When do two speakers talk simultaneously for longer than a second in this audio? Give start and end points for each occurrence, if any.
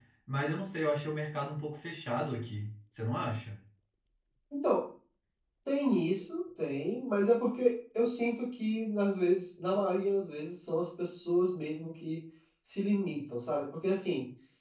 none

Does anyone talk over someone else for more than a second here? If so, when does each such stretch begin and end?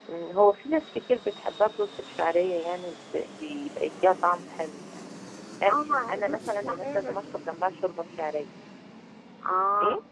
5.7-7.4

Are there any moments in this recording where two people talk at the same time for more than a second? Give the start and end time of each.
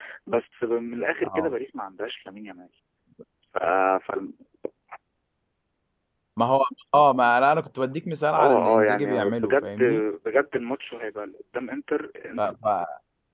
8.4-9.8

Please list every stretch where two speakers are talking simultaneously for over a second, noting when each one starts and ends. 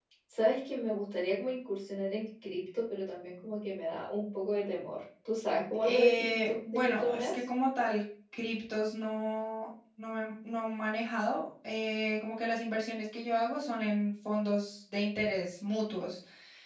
5.8-7.3

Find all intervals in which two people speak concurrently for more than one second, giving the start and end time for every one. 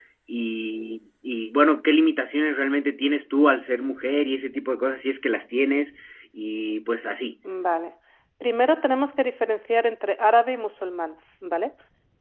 none

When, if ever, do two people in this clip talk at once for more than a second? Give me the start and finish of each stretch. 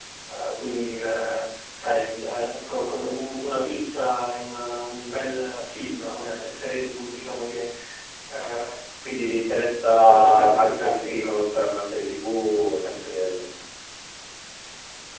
9.8-11.2

